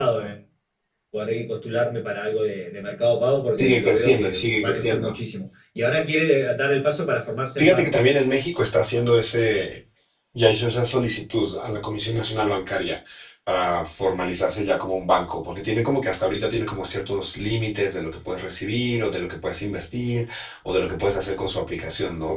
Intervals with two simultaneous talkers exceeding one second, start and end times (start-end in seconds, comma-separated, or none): 3.5-5.1